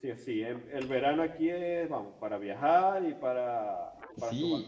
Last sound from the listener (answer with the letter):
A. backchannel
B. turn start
B